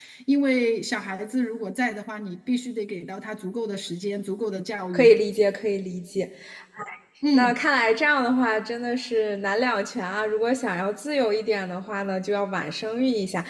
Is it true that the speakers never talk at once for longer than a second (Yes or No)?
Yes